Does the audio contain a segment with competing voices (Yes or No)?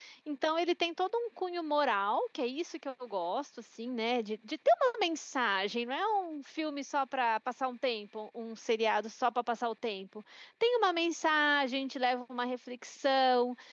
No